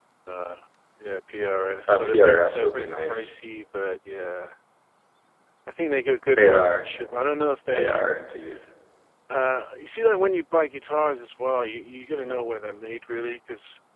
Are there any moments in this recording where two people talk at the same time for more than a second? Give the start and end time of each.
1.9-3.3

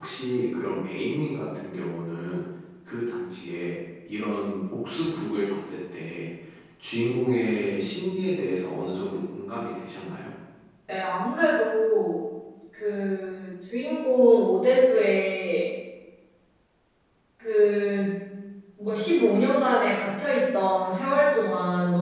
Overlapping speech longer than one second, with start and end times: none

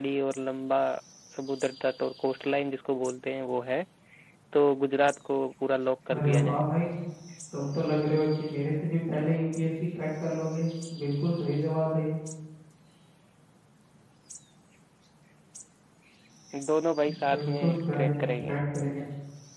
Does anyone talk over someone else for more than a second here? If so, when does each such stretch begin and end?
17.3-18.5

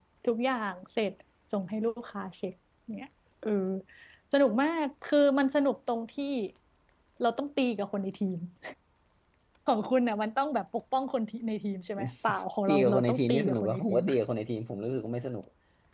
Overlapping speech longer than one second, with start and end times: 12.7-14.0

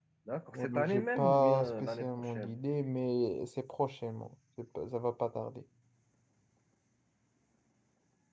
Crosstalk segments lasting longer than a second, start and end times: 0.5-2.5

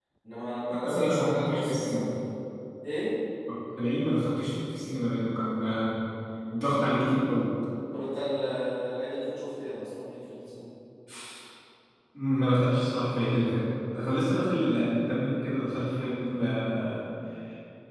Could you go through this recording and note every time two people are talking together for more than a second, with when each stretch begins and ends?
0.7-2.1

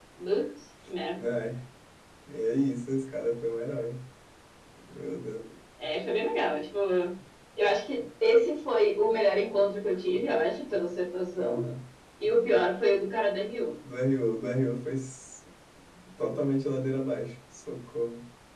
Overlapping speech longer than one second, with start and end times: none

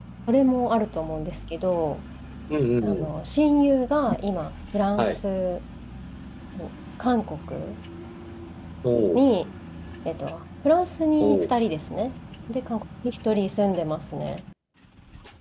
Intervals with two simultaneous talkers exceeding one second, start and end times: none

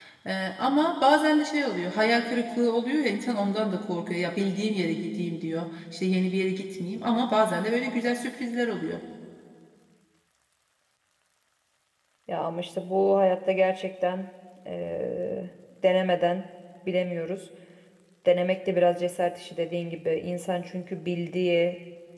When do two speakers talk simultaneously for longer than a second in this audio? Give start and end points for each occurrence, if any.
none

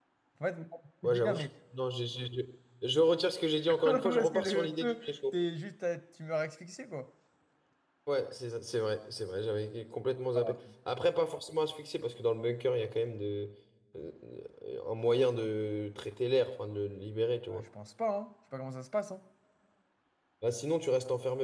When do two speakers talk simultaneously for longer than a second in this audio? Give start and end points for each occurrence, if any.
3.8-5.3

